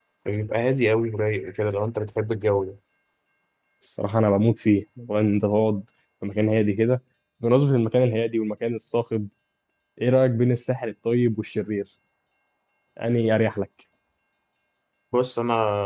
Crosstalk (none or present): none